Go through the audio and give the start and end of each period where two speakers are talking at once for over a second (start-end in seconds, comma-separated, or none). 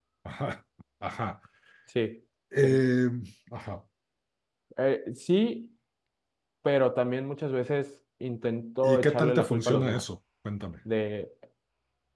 8.8-10.0